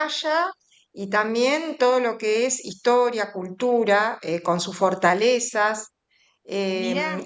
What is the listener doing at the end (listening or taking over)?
listening